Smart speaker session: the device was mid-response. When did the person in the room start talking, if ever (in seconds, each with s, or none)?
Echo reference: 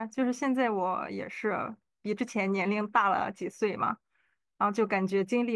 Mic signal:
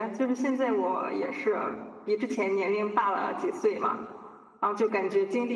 none